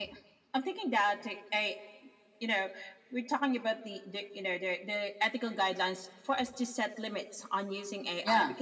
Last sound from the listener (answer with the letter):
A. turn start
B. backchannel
B